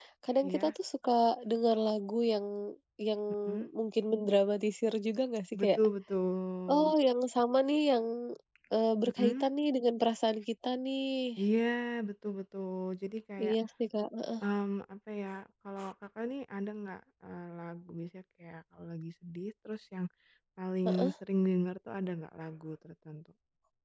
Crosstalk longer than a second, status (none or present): none